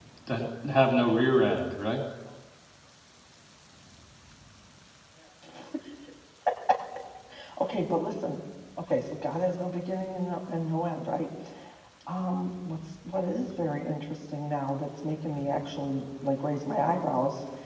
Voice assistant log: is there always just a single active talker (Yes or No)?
Yes